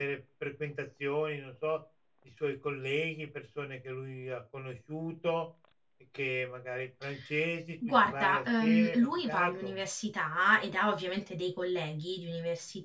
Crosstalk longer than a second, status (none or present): present